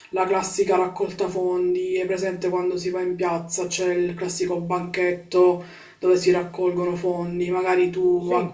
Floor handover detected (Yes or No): No